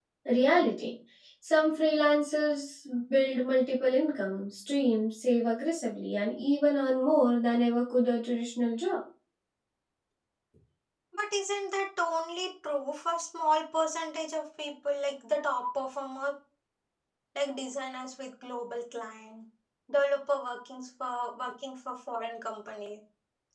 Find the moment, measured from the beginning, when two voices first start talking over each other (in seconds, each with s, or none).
none